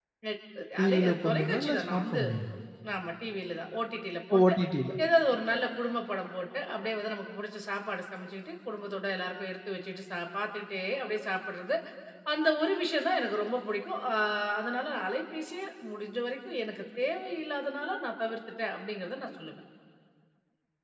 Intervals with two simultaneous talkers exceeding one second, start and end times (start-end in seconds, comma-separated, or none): 0.8-2.2